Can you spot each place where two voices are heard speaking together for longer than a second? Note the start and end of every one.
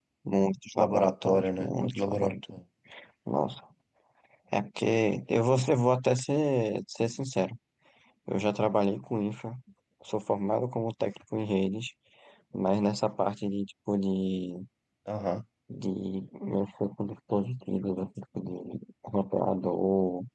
0.8-2.6

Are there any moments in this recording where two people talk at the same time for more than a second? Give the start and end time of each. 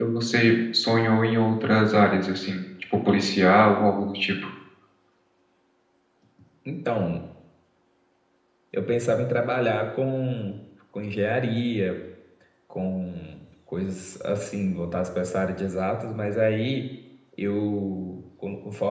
none

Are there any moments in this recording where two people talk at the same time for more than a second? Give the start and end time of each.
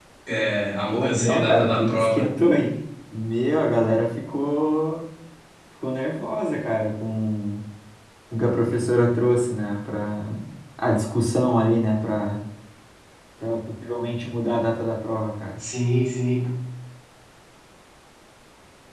0.9-2.3

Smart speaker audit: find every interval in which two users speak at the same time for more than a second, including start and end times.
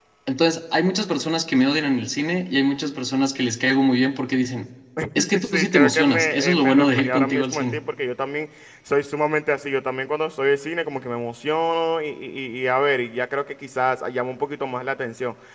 5.4-7.8

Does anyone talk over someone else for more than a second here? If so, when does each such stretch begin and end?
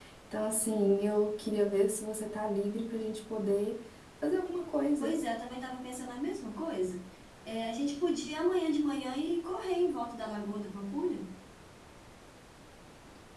none

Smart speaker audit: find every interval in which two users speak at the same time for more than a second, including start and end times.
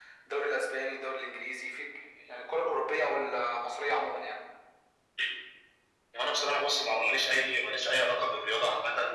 none

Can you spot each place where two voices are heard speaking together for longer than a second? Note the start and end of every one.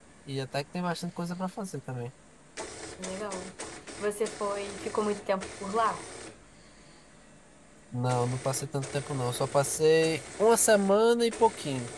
none

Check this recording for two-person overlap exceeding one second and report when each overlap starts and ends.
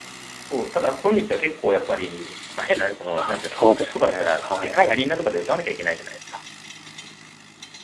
3.1-4.8

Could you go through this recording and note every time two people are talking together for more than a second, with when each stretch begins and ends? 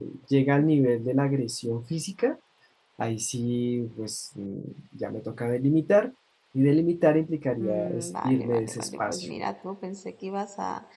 7.6-9.3

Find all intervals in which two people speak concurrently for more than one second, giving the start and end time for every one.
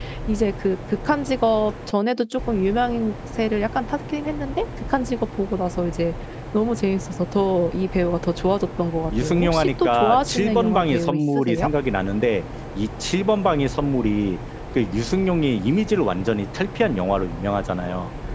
9.2-11.7

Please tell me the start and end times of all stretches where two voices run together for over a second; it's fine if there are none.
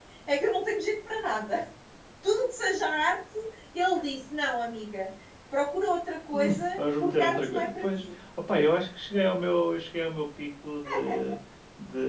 6.8-8.1

